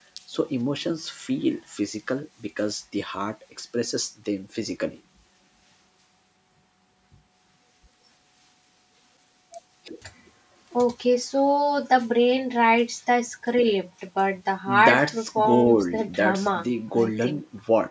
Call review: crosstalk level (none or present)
present